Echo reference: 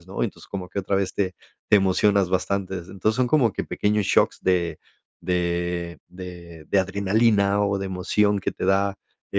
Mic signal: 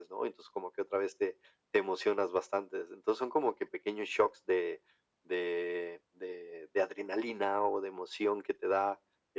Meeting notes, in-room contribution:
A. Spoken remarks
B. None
B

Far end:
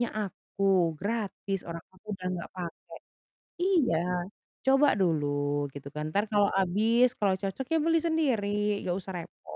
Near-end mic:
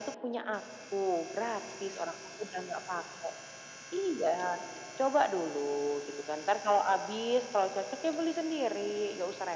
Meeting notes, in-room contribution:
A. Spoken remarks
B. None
B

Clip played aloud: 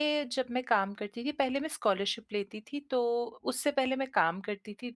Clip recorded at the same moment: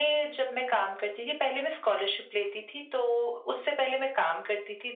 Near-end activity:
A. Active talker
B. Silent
B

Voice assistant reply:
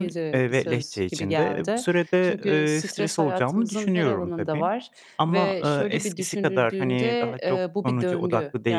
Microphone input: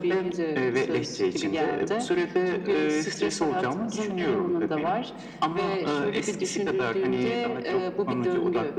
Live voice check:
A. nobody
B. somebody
A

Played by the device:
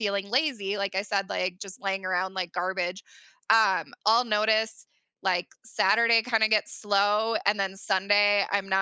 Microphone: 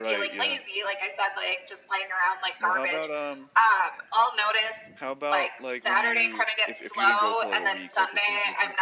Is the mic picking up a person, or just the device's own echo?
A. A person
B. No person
A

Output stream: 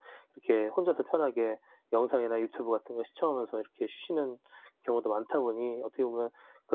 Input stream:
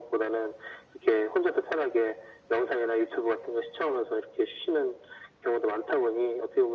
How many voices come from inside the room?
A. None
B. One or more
A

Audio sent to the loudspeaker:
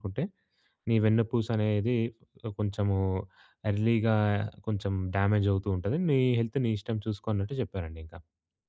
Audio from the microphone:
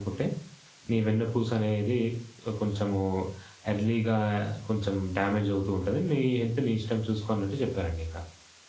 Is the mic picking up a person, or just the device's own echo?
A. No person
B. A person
A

